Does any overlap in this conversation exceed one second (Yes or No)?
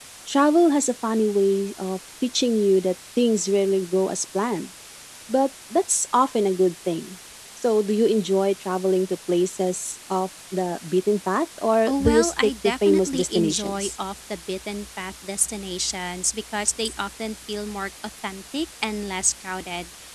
Yes